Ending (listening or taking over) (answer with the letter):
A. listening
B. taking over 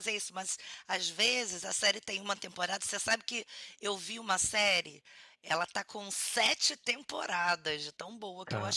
A